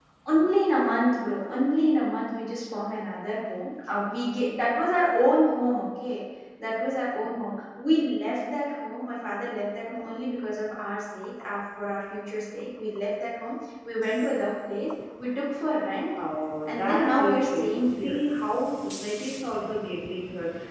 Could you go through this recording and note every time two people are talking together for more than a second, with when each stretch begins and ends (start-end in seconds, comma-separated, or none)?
16.6-18.2